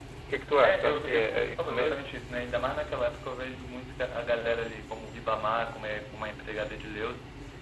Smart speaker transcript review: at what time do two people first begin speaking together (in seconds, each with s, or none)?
0.6 s